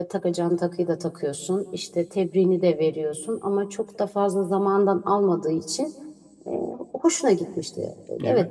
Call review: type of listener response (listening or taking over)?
taking over